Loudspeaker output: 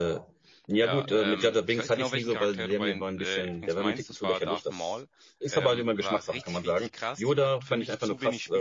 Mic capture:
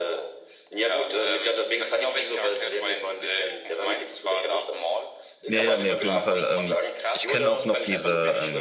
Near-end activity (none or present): present